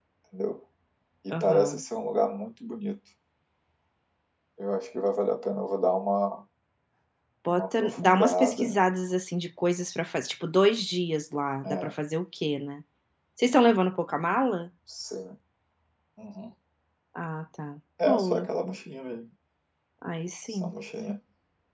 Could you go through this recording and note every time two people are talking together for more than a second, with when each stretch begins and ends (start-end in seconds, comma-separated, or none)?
7.5-8.8